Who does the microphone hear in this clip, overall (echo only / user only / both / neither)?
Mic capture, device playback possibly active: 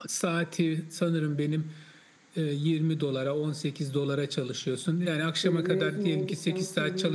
both